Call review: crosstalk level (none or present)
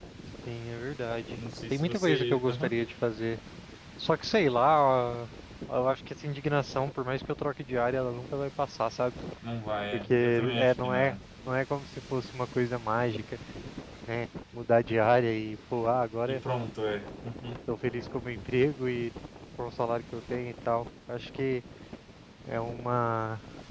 present